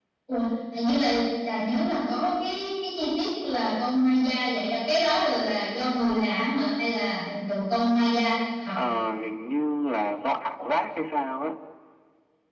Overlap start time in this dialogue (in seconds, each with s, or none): none